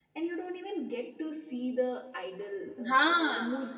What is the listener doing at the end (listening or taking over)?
listening